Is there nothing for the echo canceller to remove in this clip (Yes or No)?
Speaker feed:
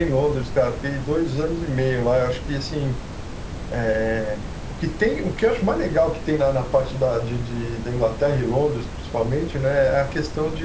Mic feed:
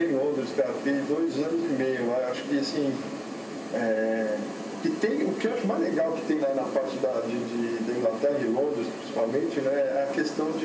No